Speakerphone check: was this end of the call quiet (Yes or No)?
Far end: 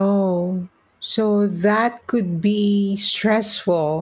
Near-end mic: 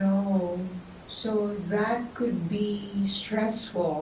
Yes